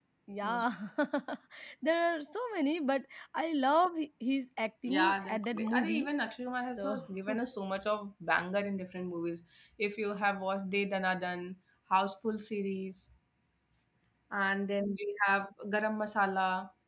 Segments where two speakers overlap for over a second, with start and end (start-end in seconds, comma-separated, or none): 4.9-6.1